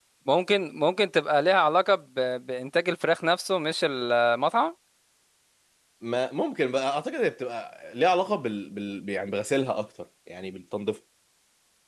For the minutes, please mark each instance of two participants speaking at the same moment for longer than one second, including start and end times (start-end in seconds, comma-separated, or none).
none